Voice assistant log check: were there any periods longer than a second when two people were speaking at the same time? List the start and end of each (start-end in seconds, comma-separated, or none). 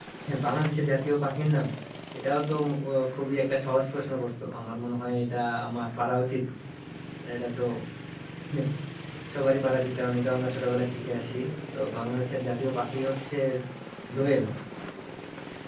none